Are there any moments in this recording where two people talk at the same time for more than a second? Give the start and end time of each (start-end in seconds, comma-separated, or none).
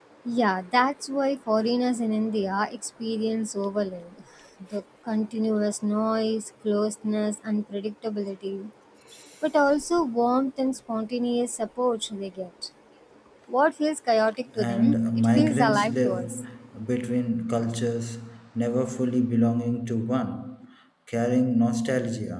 14.6-16.2